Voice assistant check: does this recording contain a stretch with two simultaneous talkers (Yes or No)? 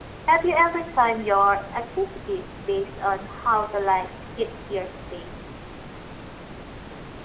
No